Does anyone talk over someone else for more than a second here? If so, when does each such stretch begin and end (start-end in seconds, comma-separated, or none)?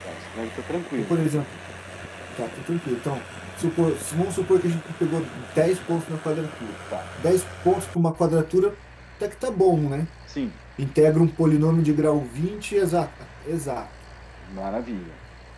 none